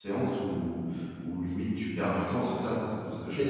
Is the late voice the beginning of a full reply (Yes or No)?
Yes